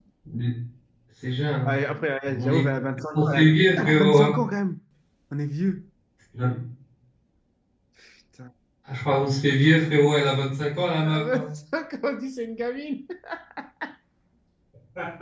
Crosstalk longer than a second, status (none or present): present